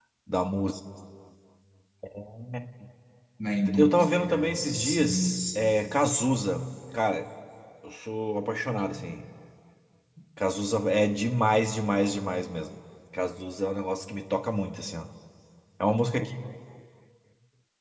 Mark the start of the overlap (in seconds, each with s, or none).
3.7 s